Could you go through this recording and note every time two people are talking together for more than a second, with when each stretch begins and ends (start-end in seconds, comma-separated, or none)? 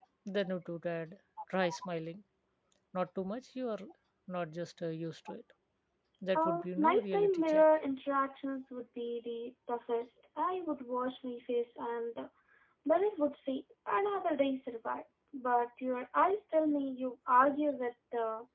6.4-7.6